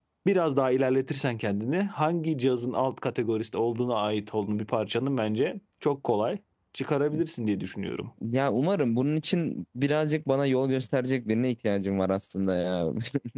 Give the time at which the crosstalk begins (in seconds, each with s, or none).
none